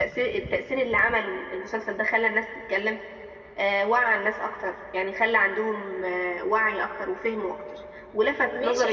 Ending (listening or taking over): listening